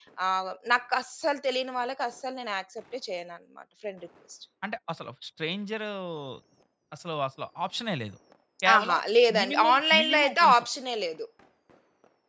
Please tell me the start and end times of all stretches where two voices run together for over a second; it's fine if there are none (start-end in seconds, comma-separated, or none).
9.4-10.6